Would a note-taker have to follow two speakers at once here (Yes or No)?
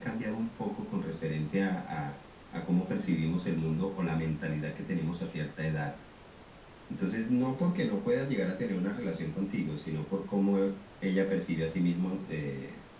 No